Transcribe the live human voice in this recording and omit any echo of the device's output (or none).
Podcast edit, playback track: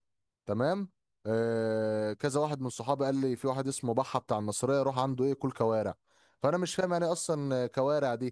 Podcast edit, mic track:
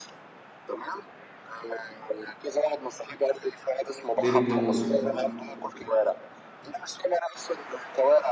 ديل الجاموس